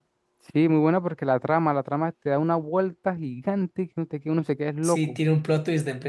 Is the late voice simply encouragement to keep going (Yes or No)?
No